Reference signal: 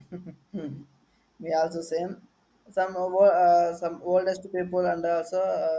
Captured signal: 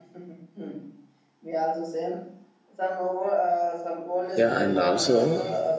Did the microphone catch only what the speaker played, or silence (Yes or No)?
No